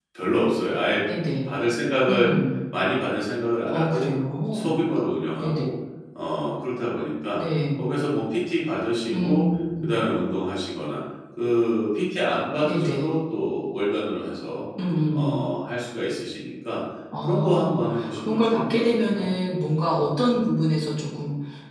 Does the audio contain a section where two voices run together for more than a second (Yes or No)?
Yes